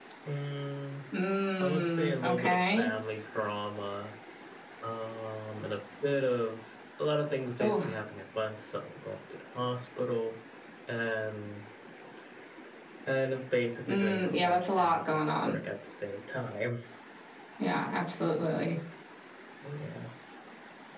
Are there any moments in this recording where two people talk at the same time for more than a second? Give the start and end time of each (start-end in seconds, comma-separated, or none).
1.6-2.9, 13.9-15.6